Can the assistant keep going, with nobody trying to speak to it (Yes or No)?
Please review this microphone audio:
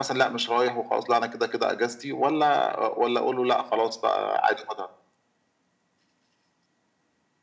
Yes